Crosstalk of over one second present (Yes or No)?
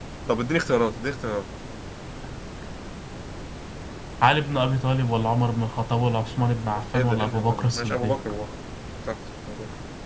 Yes